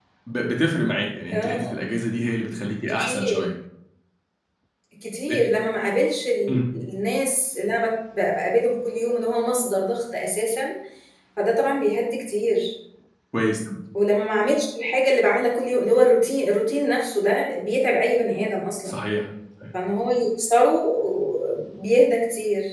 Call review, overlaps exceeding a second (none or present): none